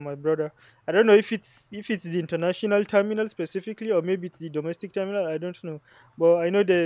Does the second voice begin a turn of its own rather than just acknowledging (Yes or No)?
No